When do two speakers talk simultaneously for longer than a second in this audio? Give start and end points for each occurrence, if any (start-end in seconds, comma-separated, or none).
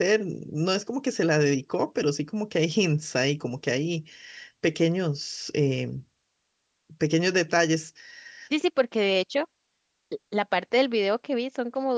none